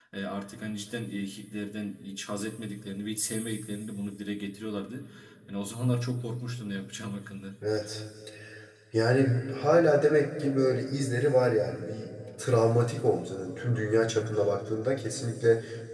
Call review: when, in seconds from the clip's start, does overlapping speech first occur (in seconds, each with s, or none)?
none